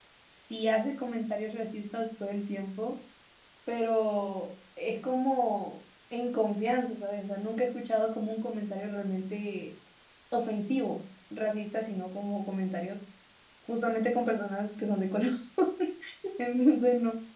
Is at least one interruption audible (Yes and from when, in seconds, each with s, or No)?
No